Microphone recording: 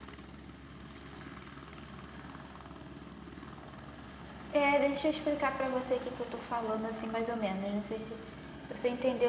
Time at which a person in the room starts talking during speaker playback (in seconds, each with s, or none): 4.5 s